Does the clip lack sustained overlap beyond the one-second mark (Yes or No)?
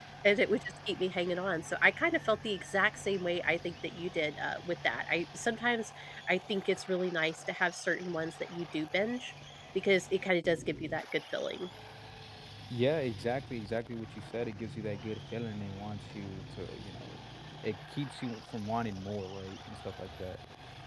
Yes